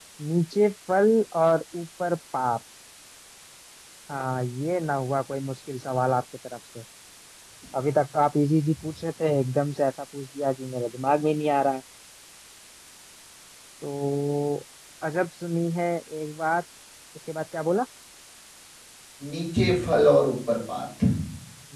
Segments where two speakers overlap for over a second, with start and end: none

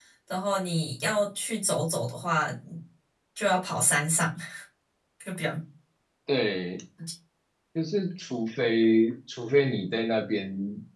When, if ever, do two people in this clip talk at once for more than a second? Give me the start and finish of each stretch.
none

